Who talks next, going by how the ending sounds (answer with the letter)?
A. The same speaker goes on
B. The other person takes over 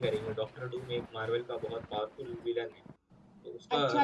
B